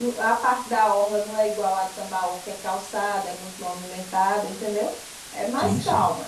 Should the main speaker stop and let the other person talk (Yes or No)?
No